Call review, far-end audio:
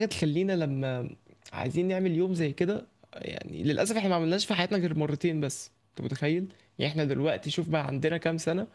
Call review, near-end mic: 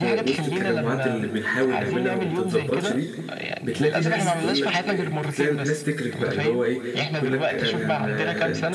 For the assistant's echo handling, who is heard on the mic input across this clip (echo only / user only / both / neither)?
both